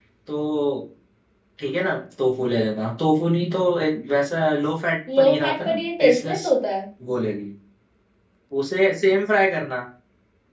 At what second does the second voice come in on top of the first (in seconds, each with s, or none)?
5.1 s